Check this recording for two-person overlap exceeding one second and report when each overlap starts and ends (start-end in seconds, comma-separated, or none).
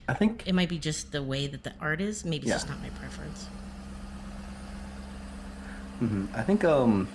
none